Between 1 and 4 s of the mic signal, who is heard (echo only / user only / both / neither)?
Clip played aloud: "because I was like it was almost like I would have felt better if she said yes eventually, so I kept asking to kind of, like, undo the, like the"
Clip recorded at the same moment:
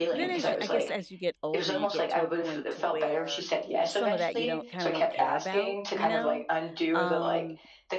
both